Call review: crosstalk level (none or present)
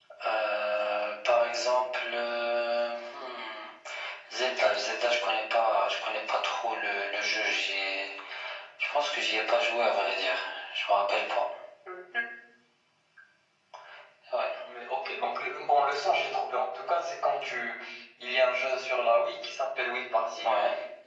none